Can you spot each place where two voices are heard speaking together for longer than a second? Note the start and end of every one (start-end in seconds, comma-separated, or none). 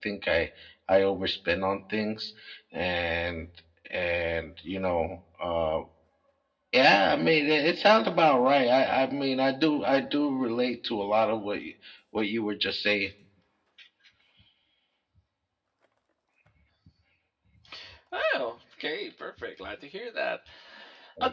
none